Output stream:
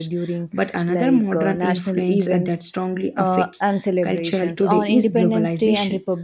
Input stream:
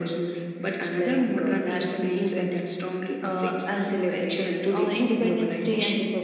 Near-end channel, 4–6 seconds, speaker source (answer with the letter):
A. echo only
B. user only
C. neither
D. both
A